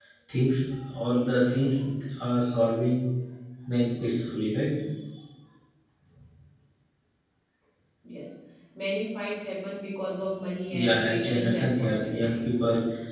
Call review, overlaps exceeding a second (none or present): present